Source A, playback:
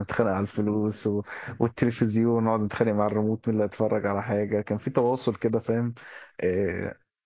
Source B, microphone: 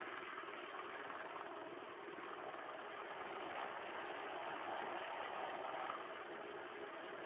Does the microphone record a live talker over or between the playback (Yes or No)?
No